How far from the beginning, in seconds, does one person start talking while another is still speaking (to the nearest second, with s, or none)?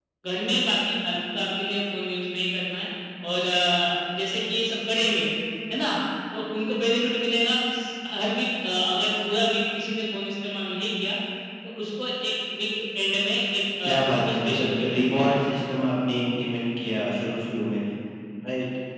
14 s